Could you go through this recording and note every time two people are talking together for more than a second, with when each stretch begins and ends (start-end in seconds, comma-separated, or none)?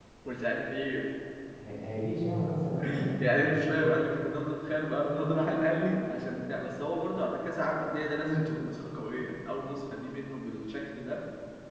none